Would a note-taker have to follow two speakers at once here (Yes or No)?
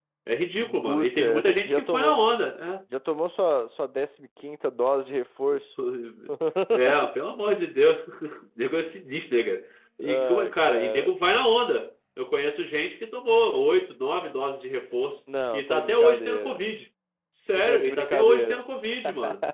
Yes